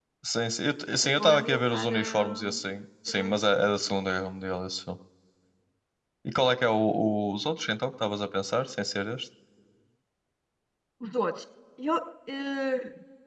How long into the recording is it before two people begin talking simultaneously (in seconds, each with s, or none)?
0.9 s